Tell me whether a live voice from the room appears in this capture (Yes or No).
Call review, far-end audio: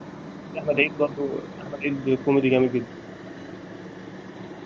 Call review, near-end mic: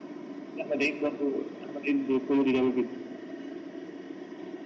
No